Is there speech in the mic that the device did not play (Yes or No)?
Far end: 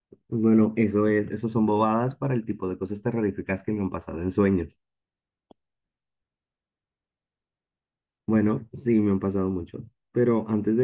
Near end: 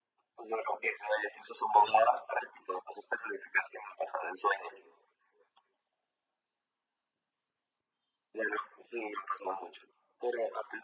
No